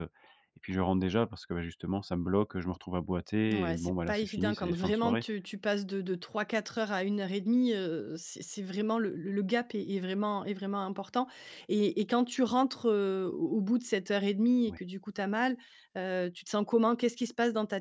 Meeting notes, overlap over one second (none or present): present